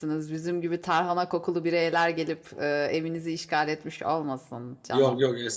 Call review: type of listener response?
taking over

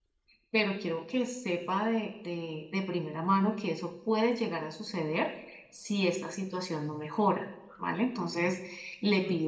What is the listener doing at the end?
listening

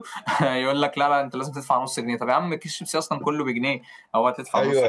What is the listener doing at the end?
taking over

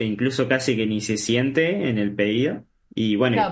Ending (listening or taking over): taking over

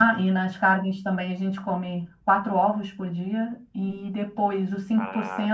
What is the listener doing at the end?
listening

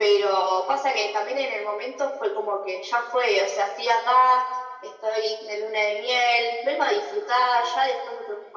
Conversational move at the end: listening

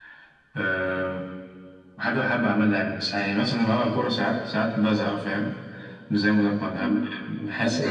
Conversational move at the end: taking over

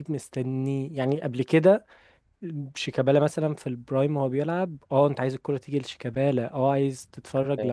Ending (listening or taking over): listening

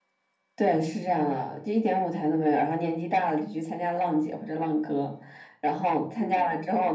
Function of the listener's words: listening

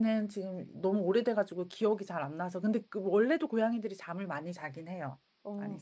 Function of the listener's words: taking over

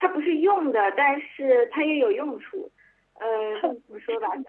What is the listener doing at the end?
listening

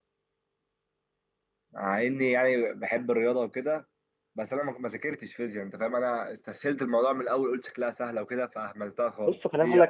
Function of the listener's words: taking over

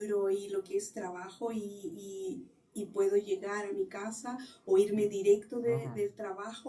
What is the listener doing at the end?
listening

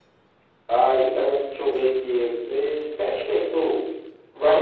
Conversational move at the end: taking over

